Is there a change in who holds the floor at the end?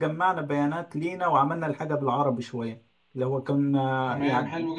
Yes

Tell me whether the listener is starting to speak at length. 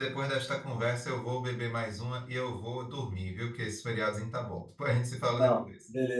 Yes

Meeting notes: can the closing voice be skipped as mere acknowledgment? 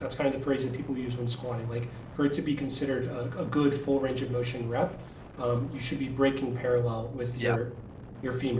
Yes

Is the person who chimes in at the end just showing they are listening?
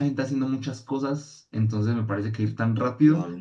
Yes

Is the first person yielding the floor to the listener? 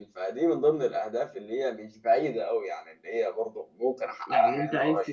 Yes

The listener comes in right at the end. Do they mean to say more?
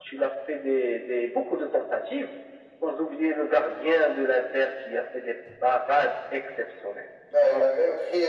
Yes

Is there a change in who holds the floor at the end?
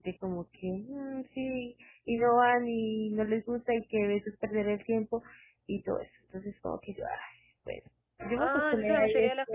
Yes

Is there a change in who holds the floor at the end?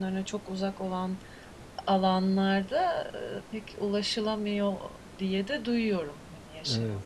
Yes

